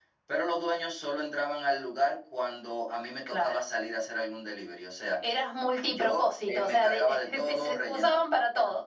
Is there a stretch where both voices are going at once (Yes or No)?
Yes